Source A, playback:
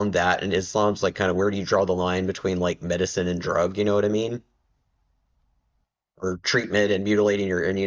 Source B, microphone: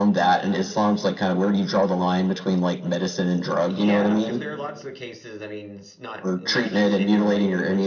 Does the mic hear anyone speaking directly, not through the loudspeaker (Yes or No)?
Yes